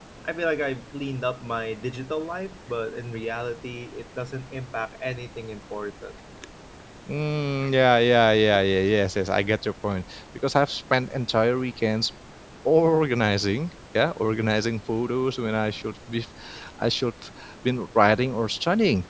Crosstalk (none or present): none